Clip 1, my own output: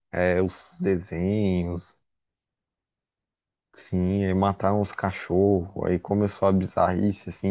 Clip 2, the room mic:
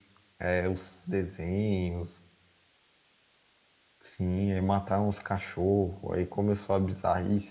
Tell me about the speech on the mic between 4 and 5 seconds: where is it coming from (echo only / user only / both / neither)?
echo only